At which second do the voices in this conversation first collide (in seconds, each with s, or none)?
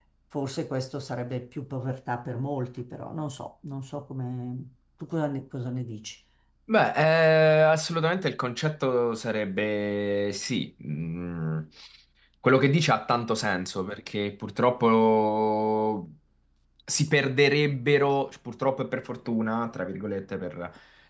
none